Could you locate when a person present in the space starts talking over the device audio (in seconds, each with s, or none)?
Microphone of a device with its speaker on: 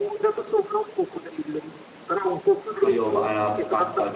2.8 s